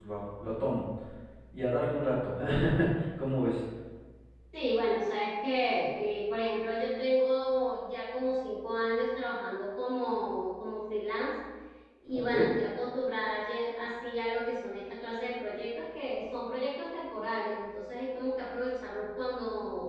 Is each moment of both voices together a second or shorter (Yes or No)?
Yes